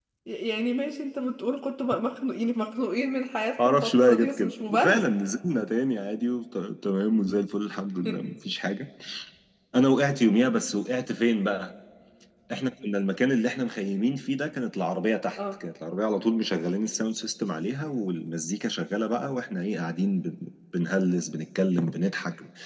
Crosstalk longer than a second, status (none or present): present